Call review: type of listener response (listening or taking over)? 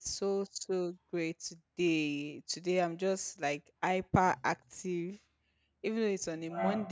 listening